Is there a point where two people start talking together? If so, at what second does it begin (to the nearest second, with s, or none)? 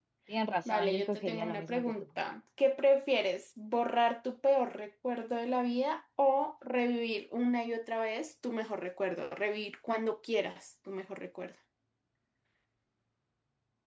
1 s